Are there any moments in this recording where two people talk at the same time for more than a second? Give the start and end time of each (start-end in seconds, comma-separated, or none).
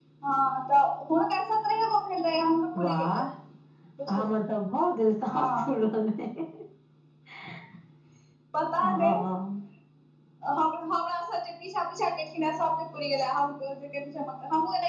none